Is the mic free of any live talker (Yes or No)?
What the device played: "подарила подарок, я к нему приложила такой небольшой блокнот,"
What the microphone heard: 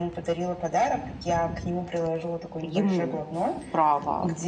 No